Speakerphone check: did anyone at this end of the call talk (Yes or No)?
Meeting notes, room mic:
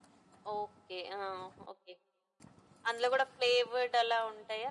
No